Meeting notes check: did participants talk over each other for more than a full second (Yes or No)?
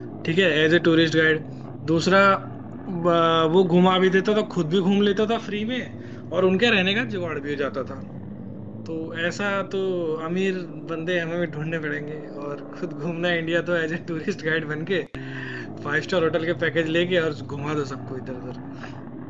No